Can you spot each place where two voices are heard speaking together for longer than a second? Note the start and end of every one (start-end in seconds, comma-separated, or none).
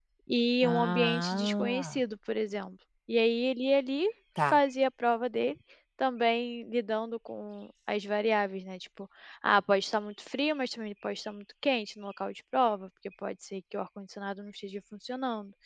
0.6-2.0